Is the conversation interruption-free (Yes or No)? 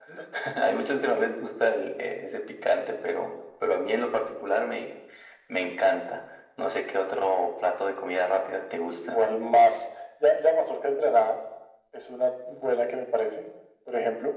Yes